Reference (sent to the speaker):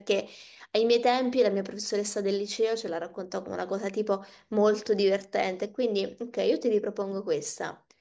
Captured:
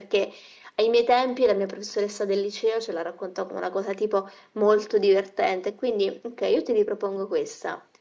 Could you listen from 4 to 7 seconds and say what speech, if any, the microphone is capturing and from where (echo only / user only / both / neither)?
echo only